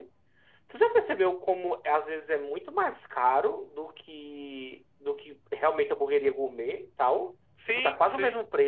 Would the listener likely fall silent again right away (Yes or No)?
No